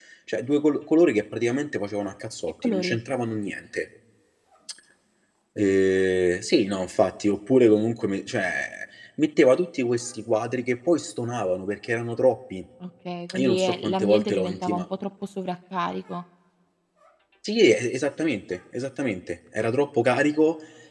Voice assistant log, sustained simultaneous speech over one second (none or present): present